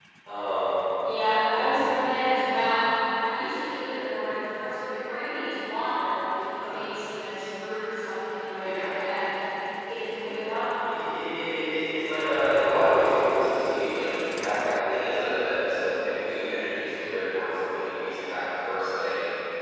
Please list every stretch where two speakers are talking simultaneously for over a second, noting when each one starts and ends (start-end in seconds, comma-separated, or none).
none